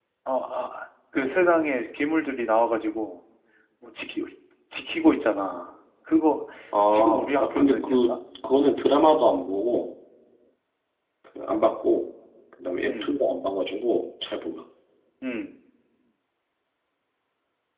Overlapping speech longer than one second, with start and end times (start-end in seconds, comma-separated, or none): 6.9-8.1